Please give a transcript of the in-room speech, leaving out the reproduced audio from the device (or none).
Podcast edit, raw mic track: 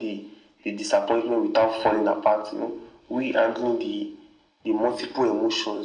none